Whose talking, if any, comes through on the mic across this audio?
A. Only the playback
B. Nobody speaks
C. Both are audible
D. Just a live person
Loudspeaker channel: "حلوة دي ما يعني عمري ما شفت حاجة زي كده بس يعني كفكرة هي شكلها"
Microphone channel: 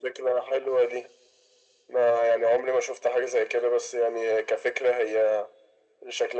A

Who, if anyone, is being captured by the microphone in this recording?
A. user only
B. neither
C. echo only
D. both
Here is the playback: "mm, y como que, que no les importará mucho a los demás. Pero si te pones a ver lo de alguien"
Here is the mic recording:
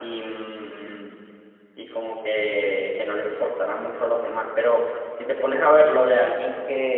C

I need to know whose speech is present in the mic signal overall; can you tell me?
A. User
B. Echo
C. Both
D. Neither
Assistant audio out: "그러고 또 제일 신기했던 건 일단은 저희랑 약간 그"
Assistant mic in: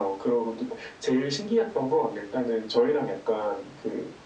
B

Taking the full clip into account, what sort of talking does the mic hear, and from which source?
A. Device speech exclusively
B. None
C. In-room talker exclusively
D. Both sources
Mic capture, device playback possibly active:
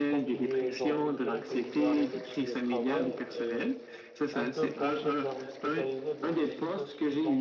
D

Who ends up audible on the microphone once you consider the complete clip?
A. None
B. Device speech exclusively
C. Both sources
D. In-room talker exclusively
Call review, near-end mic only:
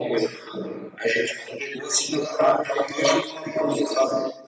B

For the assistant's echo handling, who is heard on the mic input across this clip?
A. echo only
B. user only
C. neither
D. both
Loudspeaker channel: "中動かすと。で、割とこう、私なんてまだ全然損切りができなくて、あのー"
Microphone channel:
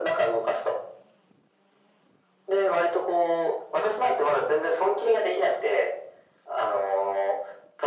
A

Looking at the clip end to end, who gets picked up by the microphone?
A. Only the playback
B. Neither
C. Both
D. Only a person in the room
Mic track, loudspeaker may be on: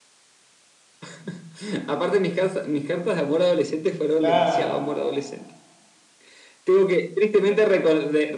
C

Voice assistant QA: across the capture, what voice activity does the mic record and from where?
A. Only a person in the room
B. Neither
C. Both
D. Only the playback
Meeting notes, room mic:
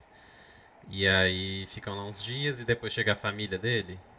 A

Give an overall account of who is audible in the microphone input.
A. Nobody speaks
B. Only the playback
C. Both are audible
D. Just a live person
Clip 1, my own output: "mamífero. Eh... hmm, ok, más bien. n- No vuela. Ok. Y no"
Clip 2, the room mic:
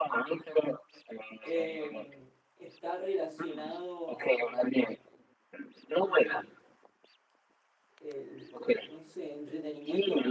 C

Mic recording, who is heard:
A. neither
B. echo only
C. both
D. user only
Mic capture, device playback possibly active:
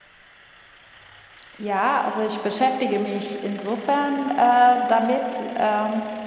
B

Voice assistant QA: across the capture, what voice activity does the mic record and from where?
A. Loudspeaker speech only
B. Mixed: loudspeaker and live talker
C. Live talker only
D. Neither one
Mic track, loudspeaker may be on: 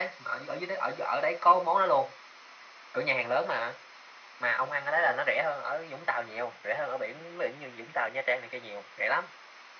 A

